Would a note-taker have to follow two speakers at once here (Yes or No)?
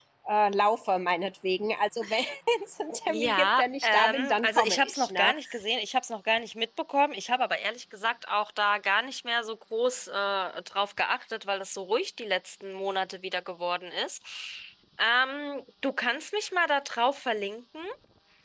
Yes